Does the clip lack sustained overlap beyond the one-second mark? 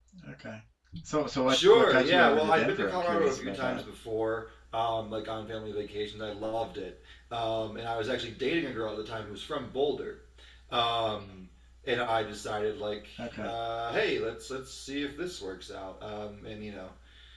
No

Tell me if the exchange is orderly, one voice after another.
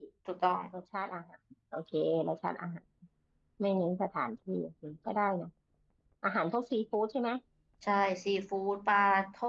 Yes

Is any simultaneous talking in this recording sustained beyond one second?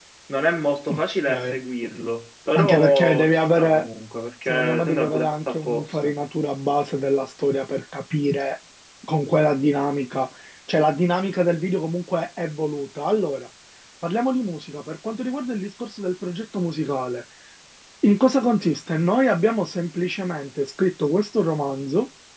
Yes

